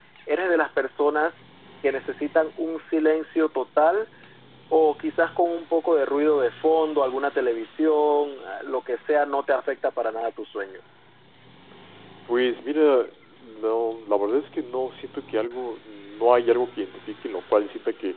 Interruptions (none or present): none